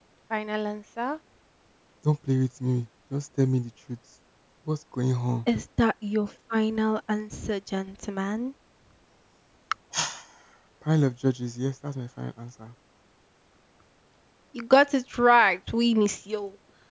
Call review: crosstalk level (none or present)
none